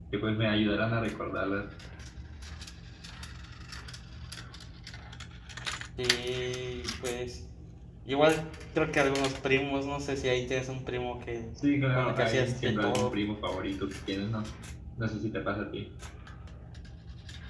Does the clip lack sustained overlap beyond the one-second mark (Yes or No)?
No